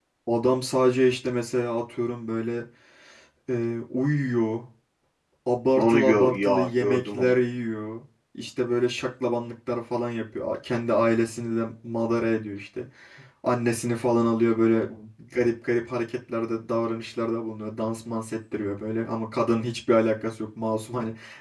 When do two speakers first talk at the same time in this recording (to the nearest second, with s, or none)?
6 s